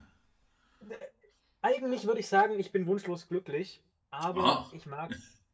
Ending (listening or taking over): listening